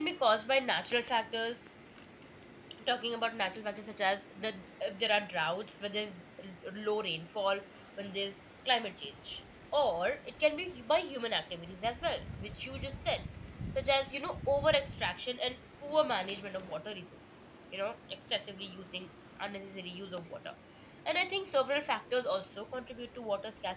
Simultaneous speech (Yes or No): No